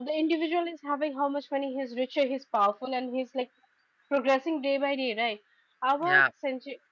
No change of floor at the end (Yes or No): Yes